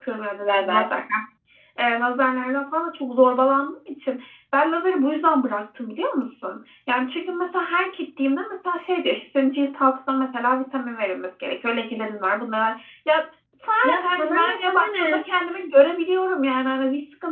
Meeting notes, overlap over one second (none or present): present